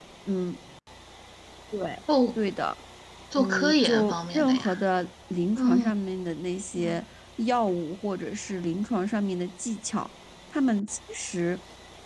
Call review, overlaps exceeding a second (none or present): present